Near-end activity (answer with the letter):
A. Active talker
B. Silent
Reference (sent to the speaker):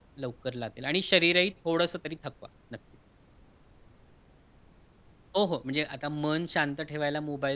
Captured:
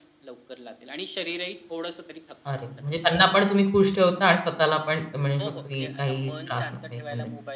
A